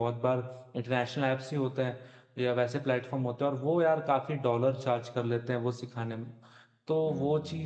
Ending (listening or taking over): listening